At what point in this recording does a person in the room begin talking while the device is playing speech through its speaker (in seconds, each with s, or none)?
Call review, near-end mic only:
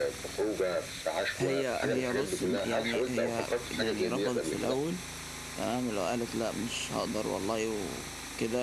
1.4 s